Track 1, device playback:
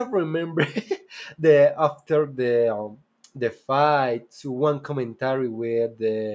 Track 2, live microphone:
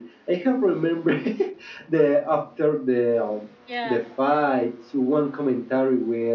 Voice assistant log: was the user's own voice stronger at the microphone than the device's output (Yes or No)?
No